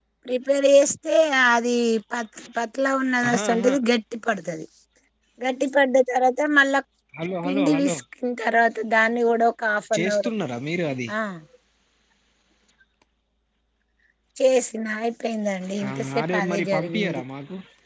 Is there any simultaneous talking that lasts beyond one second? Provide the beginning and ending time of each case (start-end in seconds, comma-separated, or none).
15.9-17.2